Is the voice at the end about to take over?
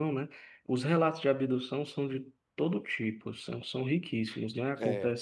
No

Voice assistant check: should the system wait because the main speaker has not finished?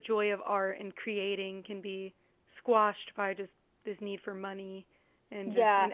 No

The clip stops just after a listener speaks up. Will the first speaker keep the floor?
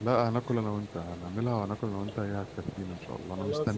No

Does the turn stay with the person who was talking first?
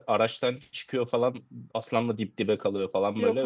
Yes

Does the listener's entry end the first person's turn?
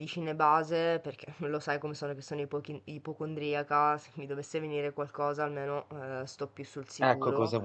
Yes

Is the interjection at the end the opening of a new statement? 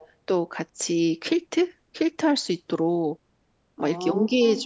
No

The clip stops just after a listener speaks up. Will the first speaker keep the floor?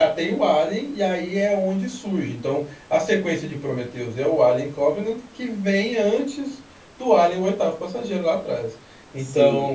No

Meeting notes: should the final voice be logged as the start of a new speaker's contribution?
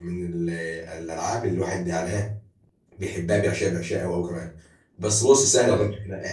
No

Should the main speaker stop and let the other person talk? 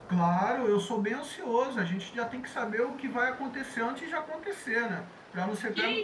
Yes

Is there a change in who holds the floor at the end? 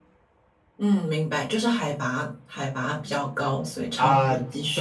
Yes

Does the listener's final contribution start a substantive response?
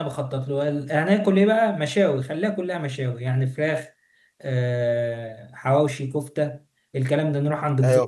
No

